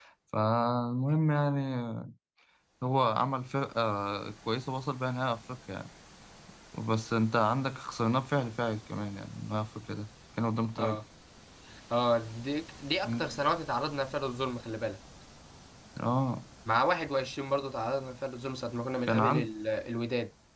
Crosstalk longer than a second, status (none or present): none